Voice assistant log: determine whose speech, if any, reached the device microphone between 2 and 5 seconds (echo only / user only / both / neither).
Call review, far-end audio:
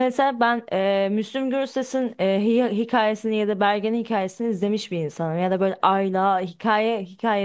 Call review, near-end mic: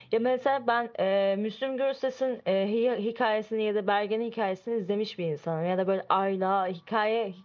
echo only